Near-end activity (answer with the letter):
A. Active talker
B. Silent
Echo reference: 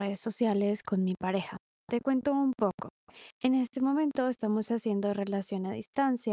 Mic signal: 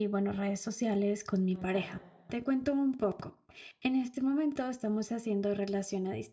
A